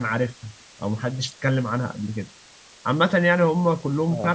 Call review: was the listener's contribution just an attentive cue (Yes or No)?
Yes